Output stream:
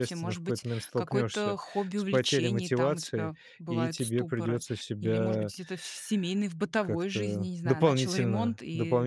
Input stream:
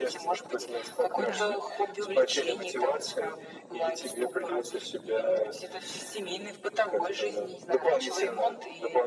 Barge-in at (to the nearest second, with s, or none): 1 s